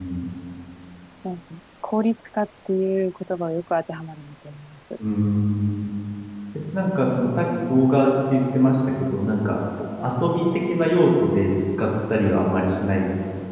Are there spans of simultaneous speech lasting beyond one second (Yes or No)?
No